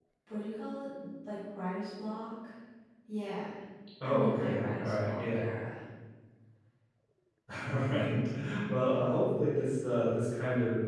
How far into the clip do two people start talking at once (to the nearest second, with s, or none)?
4 s